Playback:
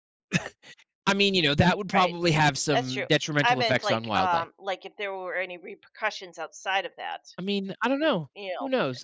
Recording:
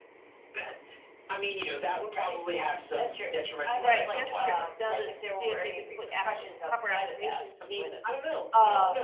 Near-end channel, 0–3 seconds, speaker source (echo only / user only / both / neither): echo only